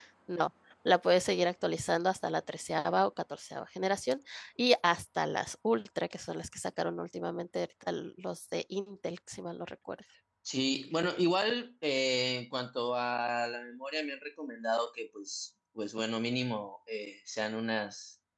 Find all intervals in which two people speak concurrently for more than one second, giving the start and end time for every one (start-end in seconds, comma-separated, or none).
none